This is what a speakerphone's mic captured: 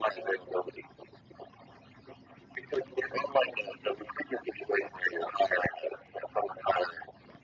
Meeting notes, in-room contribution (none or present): none